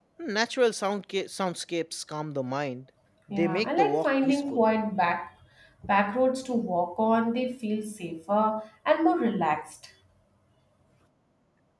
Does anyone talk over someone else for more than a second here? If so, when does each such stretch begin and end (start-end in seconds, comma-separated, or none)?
3.3-4.6